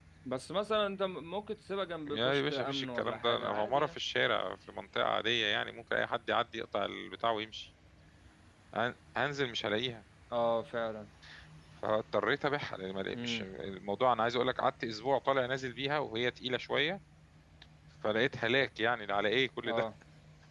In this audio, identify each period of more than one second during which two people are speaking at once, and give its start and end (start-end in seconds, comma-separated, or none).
2.0-4.0